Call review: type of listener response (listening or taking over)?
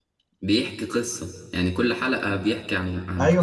taking over